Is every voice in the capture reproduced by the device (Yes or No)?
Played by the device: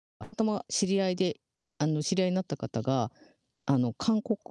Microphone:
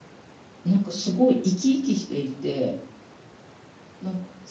No